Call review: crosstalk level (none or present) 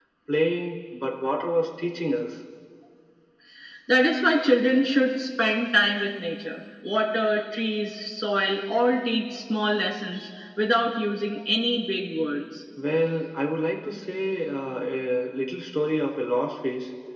none